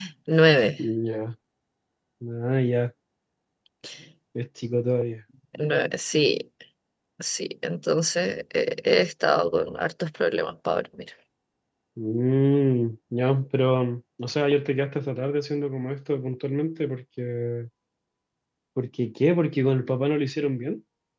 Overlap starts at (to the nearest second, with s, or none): none